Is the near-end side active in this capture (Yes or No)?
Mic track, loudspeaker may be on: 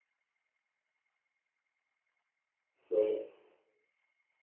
Yes